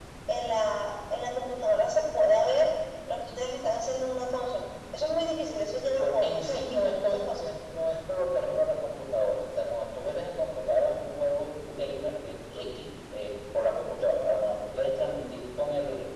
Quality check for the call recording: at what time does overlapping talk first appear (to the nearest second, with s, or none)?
6 s